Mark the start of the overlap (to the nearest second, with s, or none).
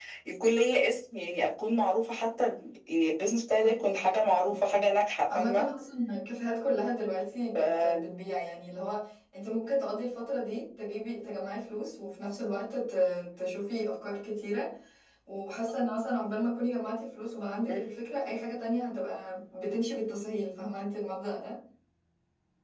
4 s